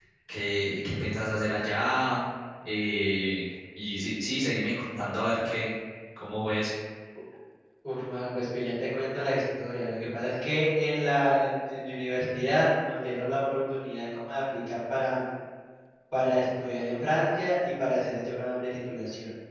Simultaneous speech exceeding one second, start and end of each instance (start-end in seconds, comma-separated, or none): none